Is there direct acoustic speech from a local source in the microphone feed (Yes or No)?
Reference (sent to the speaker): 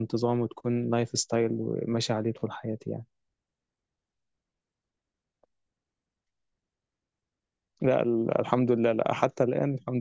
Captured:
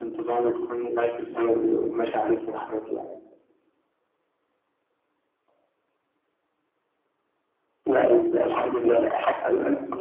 No